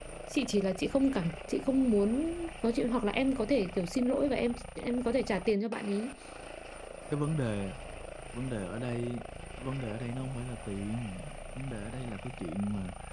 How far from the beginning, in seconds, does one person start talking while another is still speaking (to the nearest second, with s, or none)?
none